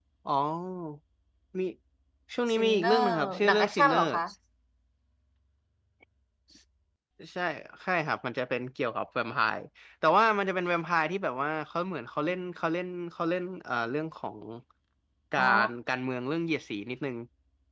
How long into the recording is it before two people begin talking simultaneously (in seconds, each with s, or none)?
2.5 s